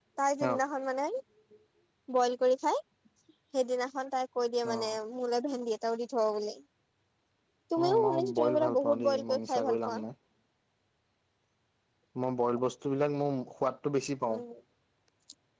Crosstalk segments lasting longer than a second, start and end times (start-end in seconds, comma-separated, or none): 7.8-10.0